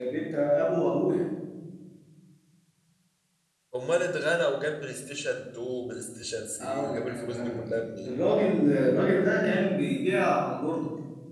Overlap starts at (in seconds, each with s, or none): 6.6 s